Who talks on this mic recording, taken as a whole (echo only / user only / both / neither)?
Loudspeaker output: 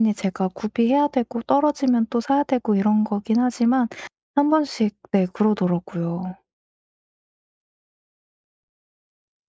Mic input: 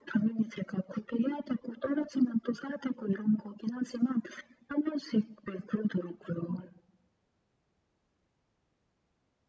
echo only